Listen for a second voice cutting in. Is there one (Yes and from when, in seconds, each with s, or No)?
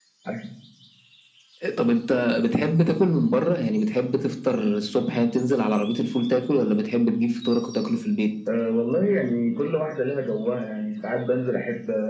No